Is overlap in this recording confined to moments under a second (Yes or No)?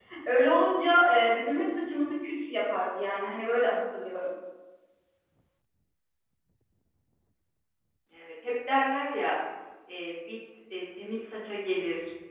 Yes